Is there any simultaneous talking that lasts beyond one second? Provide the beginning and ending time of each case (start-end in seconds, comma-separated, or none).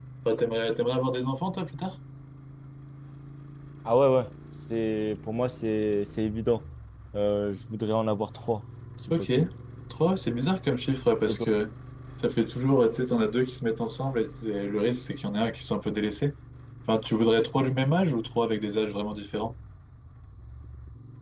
none